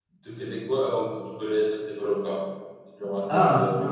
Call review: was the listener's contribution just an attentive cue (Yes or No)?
No